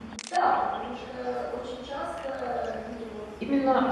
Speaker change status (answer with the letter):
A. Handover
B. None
A